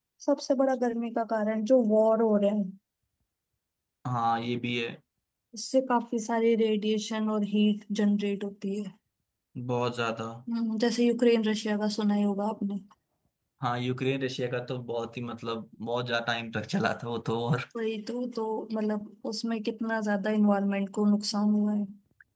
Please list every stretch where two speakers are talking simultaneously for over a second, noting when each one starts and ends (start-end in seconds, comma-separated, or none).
none